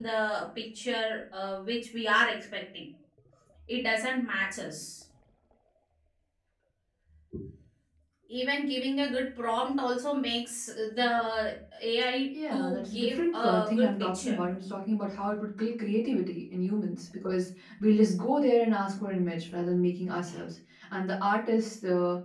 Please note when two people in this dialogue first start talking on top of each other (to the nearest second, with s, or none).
12 s